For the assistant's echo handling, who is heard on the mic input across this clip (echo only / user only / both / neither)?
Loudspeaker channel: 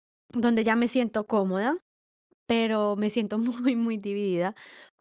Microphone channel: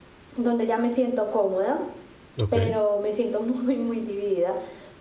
both